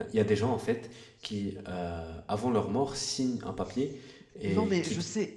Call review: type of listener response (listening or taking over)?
taking over